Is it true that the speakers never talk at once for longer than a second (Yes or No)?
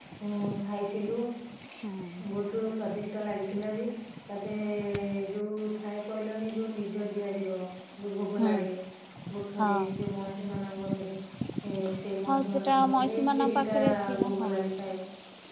No